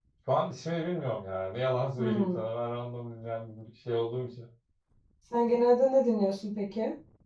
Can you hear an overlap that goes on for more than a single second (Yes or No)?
No